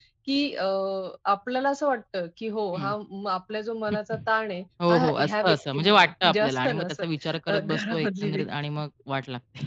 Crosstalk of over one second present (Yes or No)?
Yes